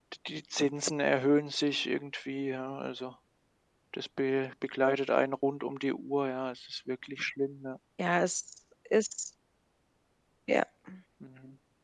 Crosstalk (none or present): none